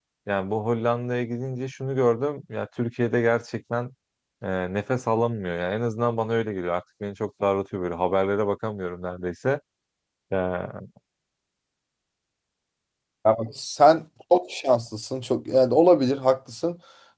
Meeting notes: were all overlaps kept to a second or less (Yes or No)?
Yes